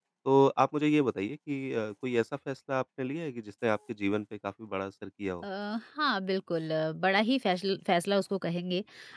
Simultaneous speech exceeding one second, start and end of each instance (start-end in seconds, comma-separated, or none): none